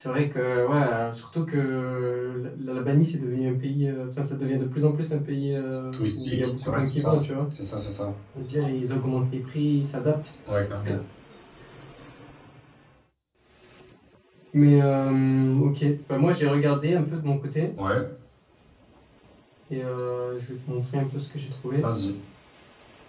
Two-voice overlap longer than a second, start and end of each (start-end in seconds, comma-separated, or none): 5.9-7.2